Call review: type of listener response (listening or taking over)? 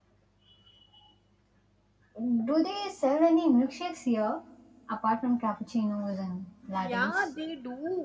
taking over